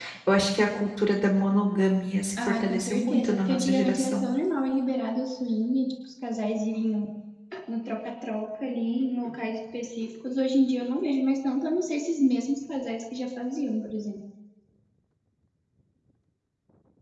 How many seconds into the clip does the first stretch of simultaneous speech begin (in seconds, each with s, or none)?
2.4 s